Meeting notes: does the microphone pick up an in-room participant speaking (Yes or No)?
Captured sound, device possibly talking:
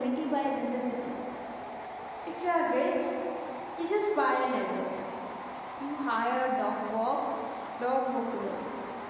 No